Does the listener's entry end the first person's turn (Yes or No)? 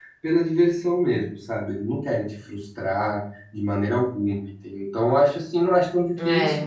No